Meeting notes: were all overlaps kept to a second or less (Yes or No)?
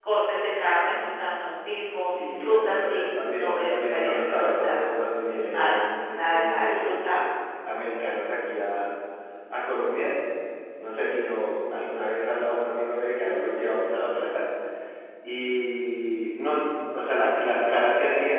No